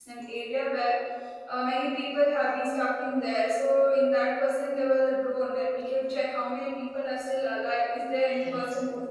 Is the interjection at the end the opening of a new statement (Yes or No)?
No